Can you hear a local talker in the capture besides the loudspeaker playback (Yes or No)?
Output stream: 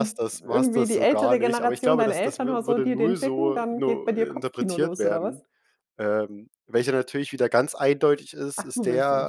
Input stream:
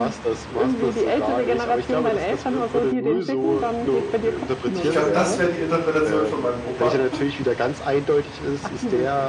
Yes